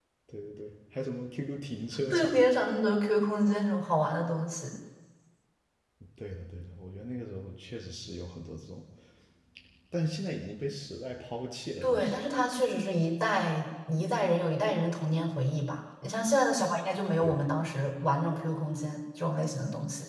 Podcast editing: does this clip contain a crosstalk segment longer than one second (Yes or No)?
No